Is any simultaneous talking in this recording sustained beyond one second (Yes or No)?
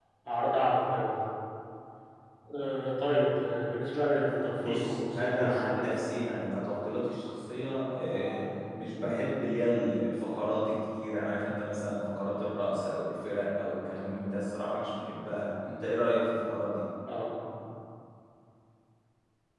Yes